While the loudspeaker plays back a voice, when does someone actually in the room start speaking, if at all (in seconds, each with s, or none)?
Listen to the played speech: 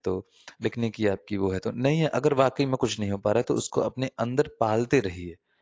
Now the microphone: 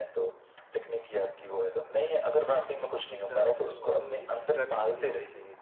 2.8 s